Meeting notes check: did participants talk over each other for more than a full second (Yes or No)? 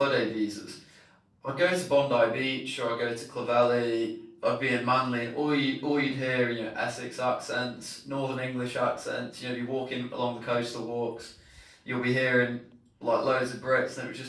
No